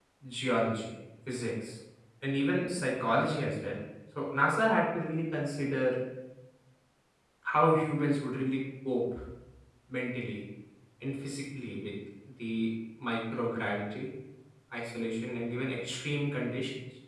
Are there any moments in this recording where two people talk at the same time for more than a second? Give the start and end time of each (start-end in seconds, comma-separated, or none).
none